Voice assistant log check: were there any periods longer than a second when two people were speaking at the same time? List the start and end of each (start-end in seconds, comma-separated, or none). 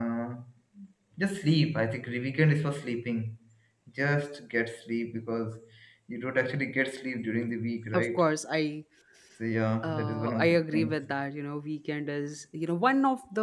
9.8-11.1